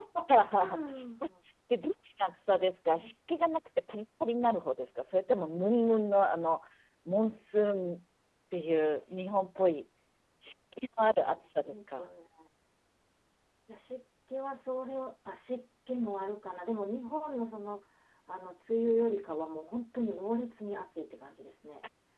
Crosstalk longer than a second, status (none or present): none